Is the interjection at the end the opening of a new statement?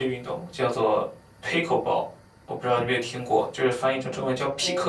Yes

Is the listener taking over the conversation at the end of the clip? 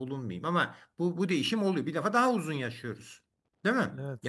Yes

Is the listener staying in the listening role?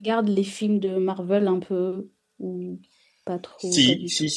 No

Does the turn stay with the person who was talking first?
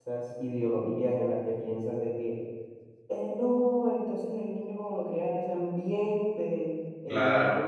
Yes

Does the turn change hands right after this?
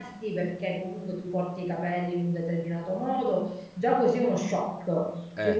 No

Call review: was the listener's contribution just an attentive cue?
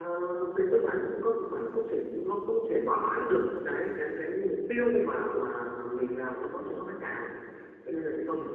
Yes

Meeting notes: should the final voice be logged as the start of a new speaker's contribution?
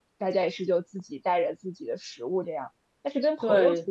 No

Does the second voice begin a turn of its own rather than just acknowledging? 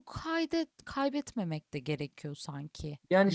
Yes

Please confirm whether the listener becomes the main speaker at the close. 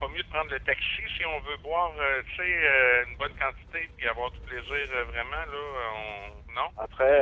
No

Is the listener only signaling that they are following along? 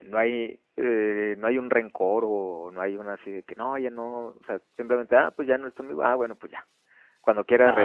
Yes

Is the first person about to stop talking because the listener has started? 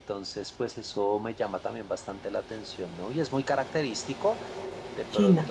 No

